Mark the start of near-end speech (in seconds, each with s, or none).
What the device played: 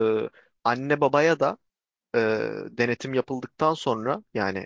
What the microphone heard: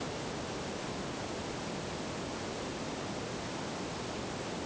none